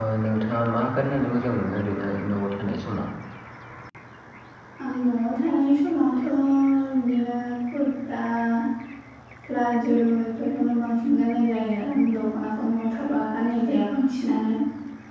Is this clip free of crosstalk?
Yes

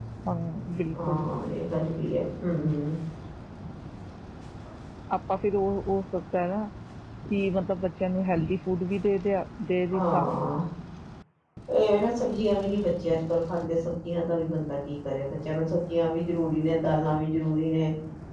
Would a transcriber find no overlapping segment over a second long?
Yes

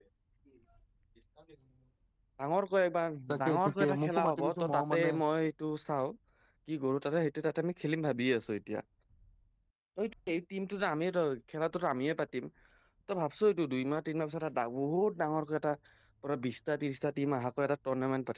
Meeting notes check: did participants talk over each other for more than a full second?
Yes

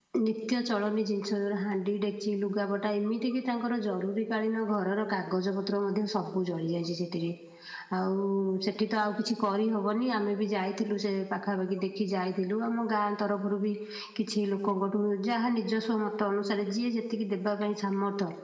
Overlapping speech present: No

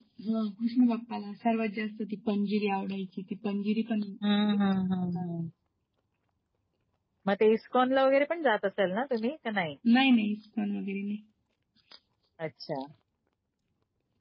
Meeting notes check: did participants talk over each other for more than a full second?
No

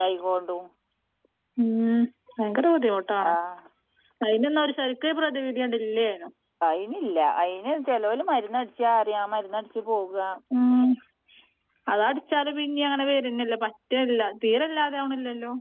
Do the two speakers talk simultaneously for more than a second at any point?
No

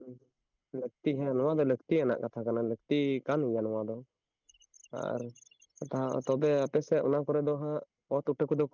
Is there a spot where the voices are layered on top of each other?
No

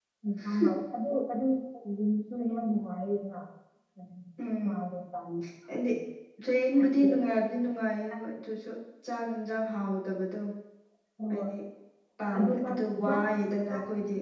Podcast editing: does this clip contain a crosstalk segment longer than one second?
No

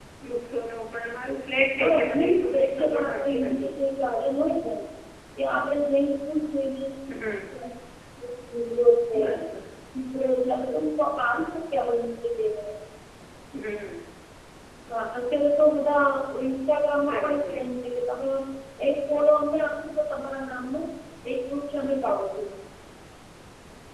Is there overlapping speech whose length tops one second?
Yes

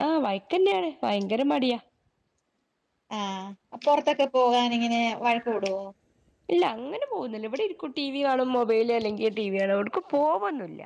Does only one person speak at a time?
Yes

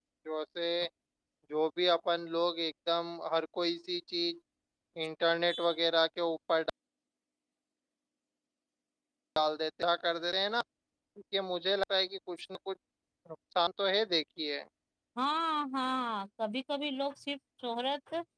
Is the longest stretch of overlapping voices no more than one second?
Yes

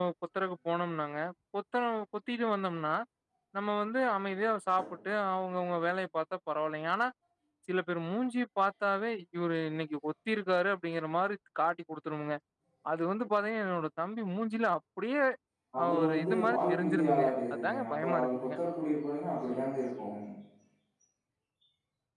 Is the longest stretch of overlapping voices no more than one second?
No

